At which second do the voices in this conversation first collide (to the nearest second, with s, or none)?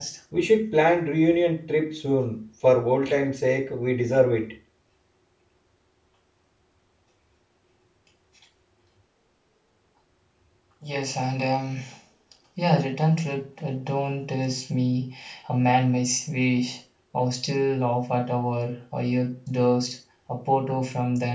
none